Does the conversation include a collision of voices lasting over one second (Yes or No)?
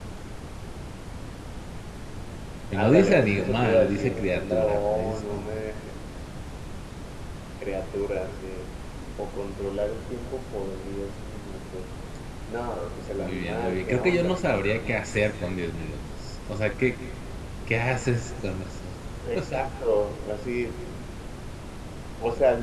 Yes